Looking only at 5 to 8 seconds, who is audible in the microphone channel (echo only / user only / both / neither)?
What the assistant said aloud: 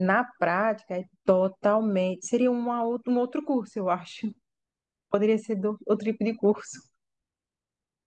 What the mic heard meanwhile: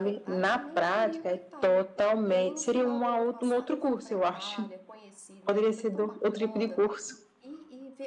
both